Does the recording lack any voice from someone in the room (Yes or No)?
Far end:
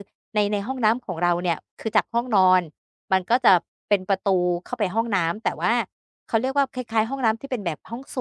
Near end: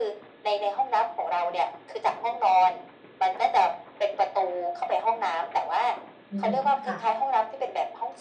No